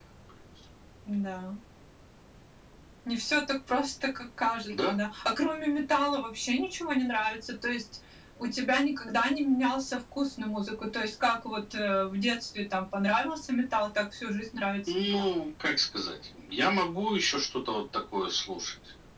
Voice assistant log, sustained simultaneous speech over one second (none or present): none